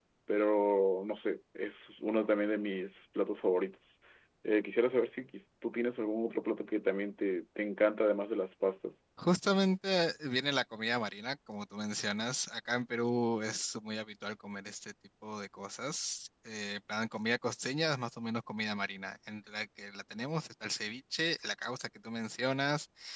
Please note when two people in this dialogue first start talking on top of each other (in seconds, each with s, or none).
none